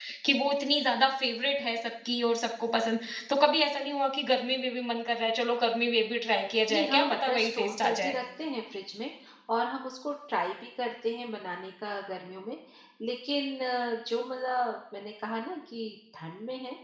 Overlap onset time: 7 s

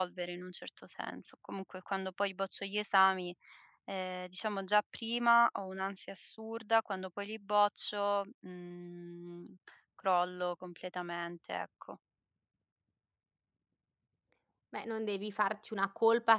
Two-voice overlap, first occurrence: none

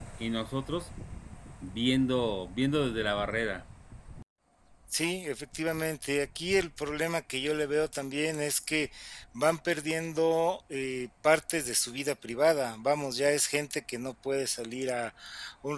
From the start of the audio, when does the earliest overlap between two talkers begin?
none

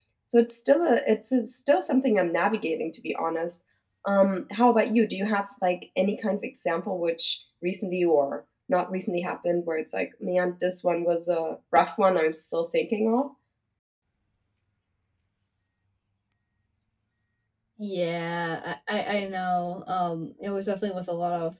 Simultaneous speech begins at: none

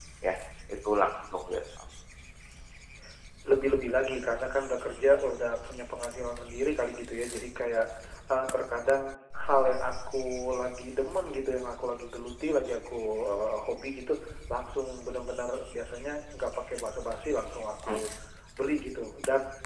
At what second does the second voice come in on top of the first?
none

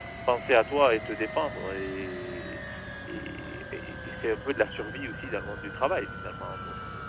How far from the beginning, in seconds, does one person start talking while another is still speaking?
none

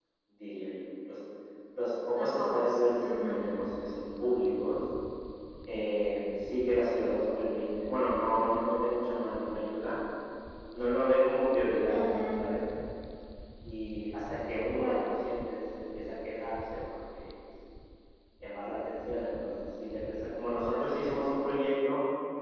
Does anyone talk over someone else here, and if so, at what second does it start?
2 s

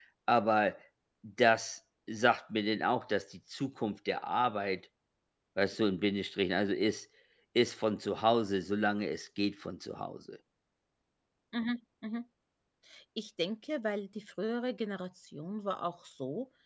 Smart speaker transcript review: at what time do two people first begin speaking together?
none

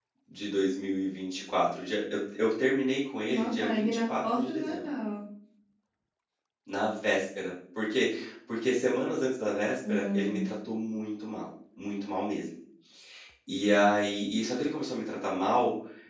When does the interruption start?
3 s

